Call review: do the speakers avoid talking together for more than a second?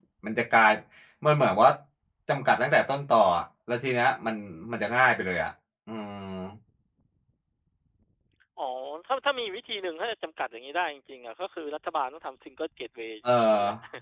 Yes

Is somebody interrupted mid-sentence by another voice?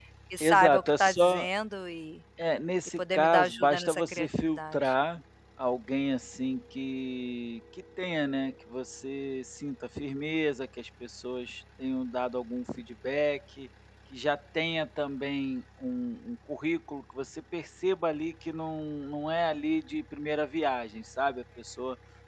Yes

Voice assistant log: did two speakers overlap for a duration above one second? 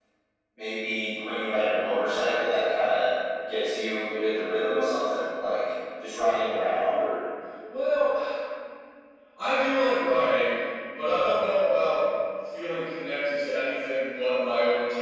No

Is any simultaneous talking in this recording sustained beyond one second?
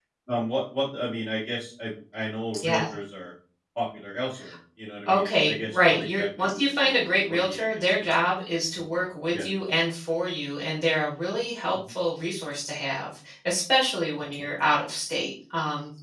Yes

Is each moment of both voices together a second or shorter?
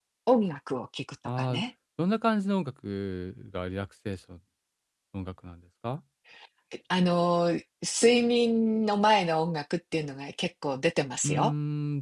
Yes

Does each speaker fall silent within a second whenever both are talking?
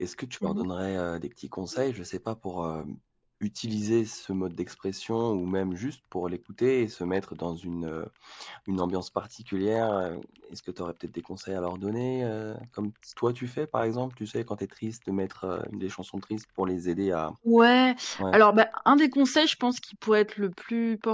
Yes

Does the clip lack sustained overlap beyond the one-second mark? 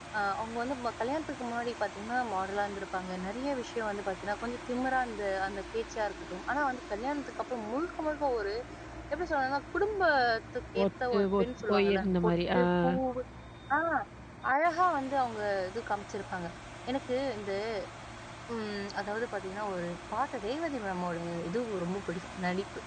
No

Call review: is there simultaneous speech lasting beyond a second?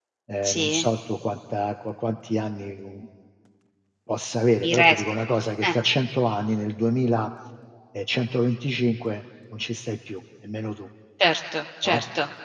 No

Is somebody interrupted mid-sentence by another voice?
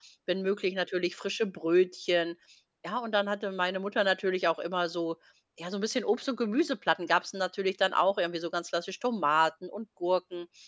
No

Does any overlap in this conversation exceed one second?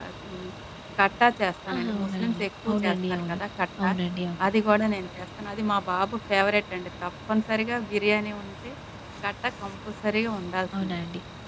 Yes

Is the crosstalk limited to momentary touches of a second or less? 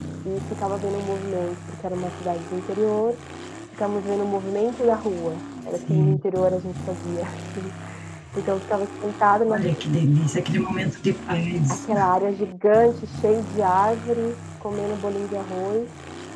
Yes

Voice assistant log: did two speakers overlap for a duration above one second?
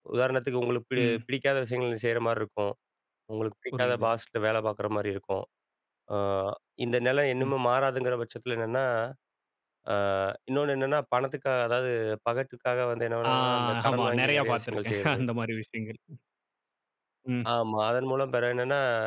Yes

